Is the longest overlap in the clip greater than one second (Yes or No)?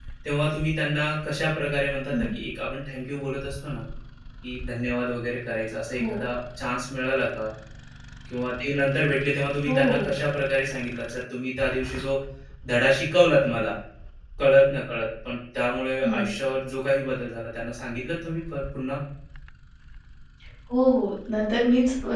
No